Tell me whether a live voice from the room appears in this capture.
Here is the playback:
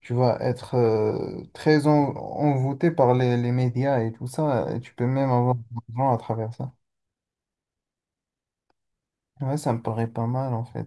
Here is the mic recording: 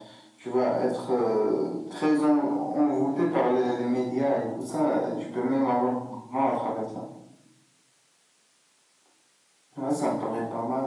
No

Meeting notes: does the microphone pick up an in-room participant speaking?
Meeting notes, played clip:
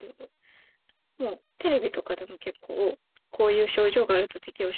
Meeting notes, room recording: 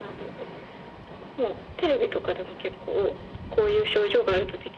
No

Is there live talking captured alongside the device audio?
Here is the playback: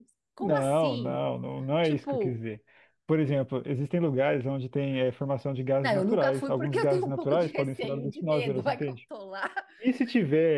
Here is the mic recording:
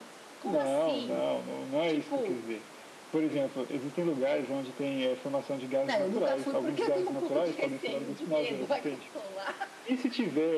No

